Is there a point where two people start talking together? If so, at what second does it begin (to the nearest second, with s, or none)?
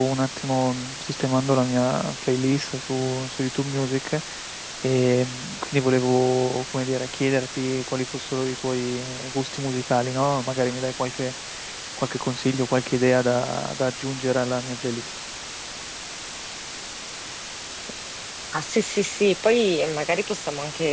none